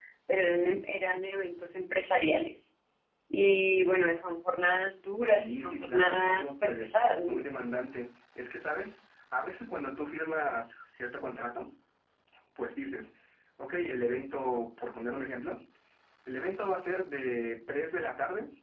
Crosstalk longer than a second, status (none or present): present